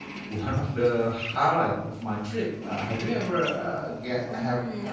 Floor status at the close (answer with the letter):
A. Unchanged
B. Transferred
B